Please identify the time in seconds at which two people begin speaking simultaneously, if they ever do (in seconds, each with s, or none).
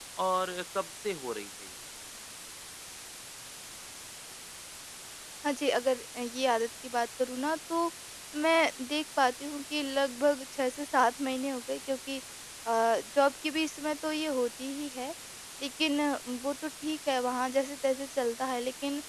none